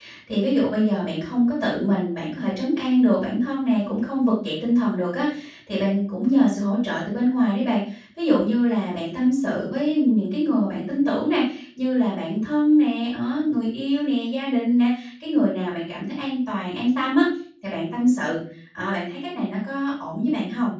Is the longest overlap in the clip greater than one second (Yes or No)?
No